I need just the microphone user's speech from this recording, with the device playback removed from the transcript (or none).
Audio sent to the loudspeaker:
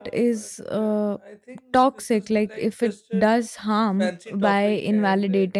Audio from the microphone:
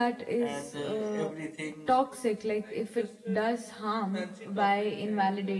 and uh, everything